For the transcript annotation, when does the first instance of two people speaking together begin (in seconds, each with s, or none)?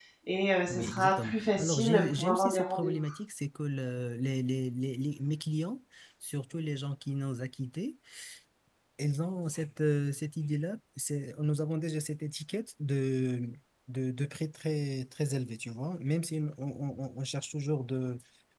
0.7 s